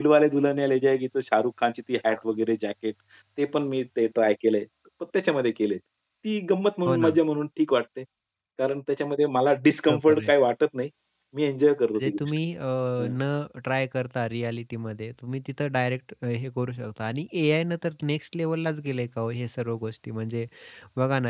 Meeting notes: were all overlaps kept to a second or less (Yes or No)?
Yes